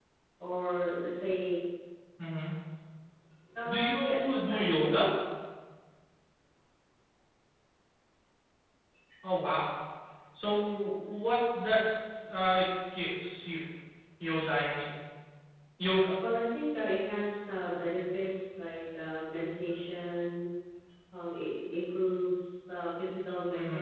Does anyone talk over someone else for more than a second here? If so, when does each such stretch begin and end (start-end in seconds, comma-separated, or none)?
3.7-5.0